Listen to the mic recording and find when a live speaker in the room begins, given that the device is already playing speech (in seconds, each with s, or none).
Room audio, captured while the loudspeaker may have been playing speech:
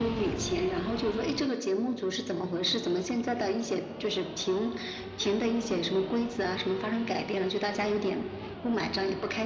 none